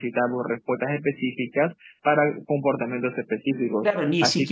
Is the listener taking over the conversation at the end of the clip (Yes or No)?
Yes